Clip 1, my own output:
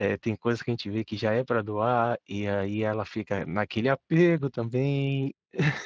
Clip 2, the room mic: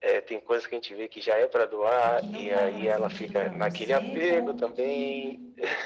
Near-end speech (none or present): present